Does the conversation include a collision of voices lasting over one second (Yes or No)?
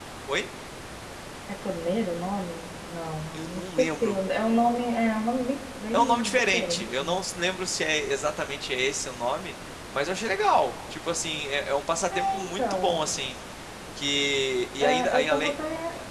Yes